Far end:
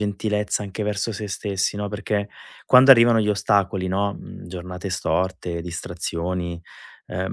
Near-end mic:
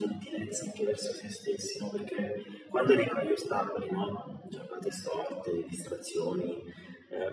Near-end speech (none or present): none